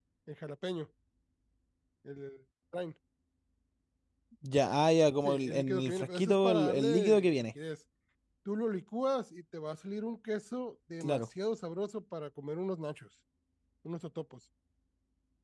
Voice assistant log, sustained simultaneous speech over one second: present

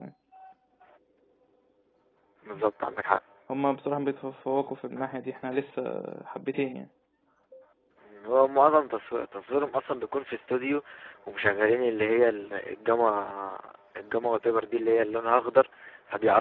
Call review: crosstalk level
none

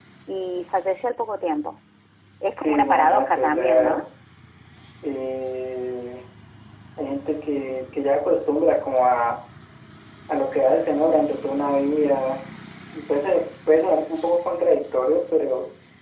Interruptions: present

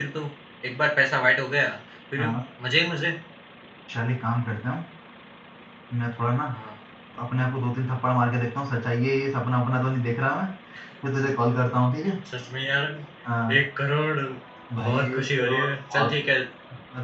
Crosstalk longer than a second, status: present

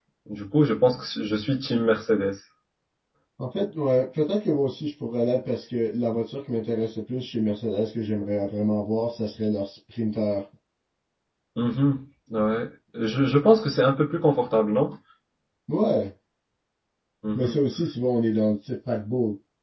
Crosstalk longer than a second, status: none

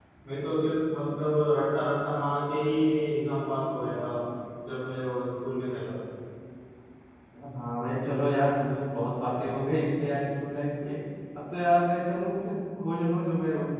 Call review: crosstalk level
none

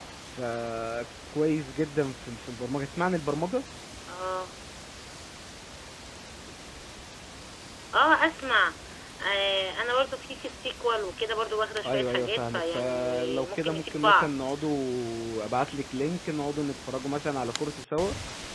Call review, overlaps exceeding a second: present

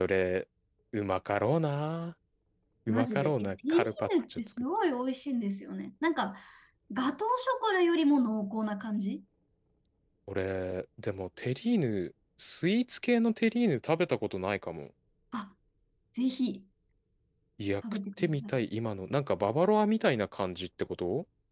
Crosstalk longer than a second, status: present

